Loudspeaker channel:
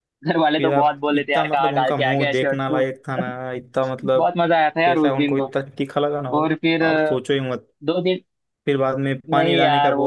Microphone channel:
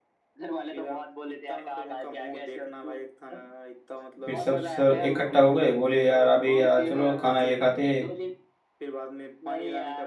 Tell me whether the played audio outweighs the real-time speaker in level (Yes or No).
No